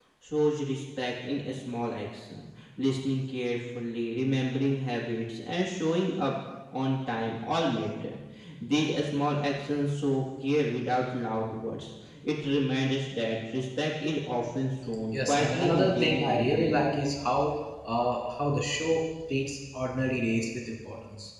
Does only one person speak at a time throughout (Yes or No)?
No